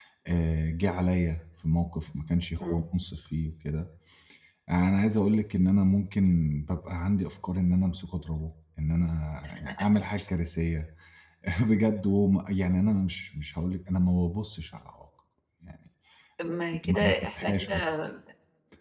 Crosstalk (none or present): present